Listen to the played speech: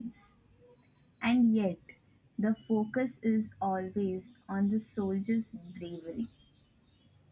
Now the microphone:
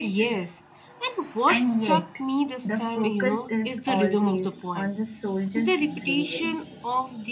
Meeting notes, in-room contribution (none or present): present